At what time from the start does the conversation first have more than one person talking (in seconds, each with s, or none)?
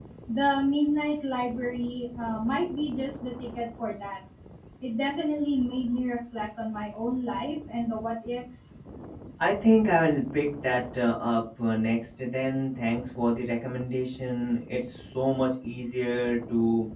none